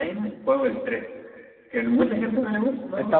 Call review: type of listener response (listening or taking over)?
taking over